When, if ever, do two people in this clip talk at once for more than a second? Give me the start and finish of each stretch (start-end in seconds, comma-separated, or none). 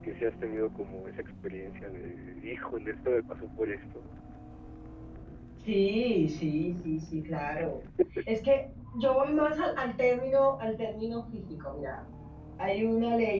none